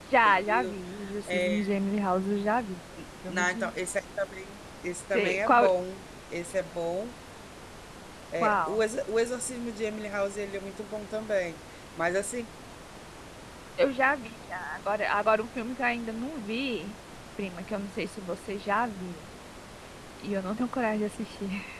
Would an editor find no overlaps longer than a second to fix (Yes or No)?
Yes